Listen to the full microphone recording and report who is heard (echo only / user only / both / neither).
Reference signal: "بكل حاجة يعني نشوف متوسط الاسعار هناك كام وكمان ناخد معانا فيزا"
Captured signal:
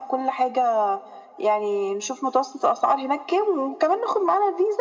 echo only